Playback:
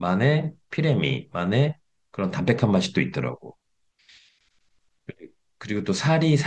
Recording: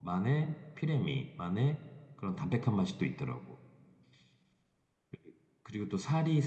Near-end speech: none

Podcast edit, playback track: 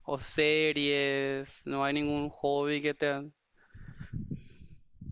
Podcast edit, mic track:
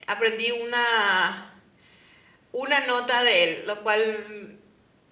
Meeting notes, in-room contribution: present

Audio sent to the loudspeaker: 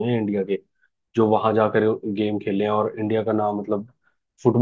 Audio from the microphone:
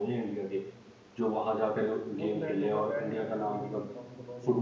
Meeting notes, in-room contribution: present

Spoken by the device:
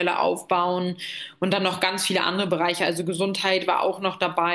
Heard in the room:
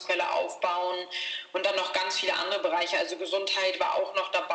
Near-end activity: none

